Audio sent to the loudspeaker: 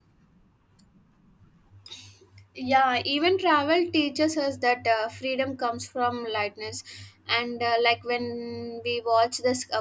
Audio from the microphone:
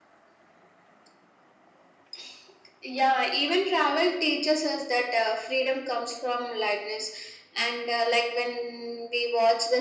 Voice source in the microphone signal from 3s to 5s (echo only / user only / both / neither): echo only